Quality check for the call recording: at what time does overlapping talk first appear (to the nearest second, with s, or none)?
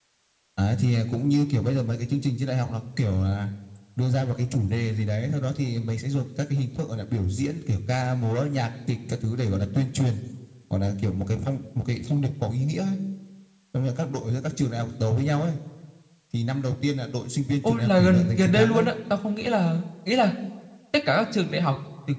18 s